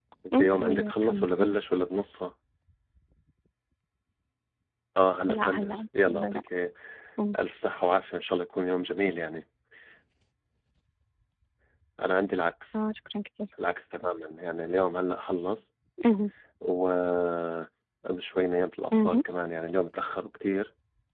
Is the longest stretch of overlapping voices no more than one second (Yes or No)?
No